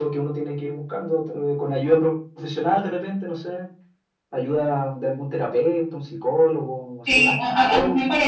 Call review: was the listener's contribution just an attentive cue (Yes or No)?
No